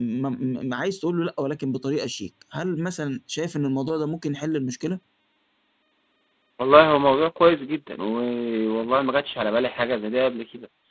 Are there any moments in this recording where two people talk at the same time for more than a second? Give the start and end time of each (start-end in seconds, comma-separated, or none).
none